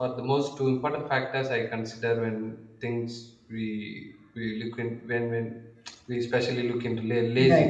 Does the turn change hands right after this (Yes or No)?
No